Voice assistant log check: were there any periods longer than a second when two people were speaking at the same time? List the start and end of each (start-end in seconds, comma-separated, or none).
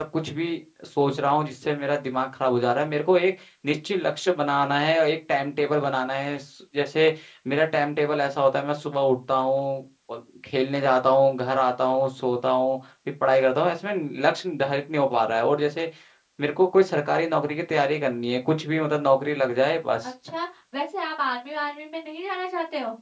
none